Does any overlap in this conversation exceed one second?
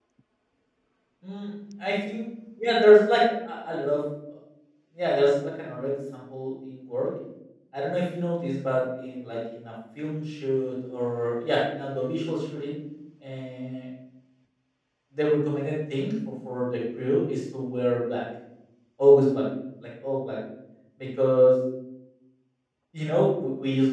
No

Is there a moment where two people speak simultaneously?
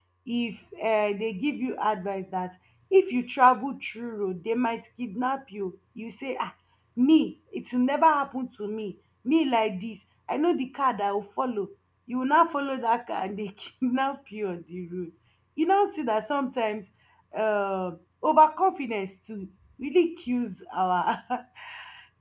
No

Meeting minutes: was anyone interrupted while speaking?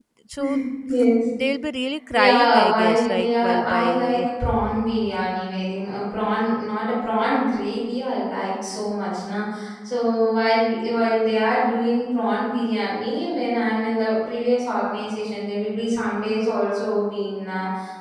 Yes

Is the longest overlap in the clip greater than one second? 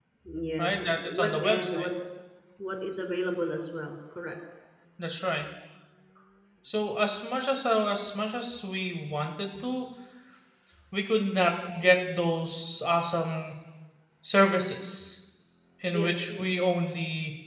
Yes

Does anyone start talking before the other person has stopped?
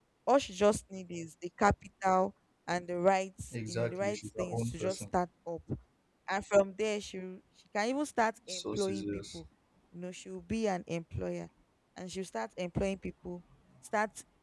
Yes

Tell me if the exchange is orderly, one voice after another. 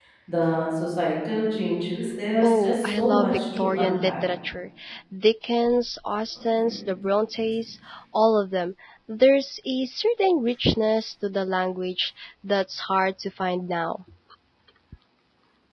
No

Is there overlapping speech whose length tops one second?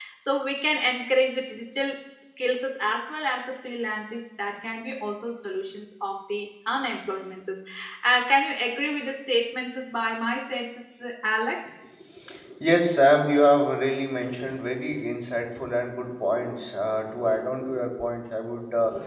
No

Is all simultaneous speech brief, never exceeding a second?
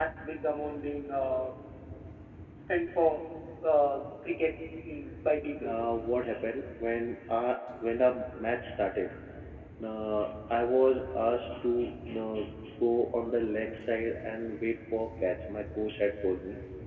Yes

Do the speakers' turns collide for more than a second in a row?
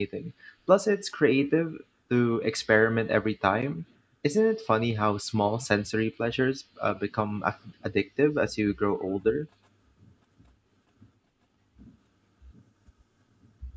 No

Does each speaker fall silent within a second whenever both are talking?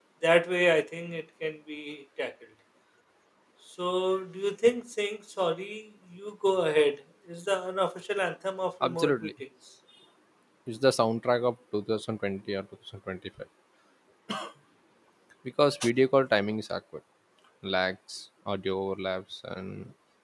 Yes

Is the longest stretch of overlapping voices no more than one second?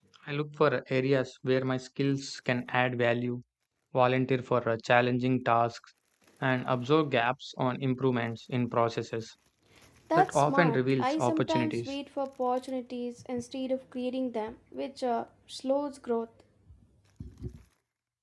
No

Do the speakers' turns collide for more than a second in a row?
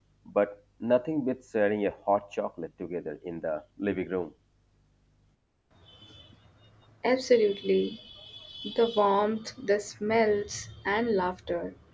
No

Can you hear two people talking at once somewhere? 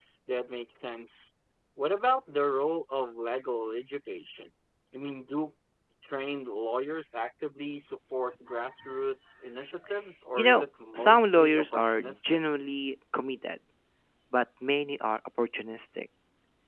Yes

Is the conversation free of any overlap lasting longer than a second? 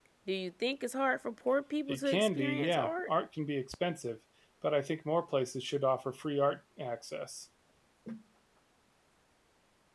No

